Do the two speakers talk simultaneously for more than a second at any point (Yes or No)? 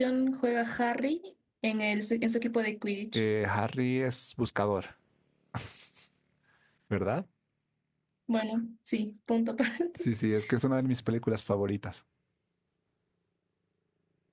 No